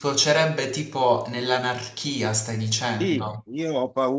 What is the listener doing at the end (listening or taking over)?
taking over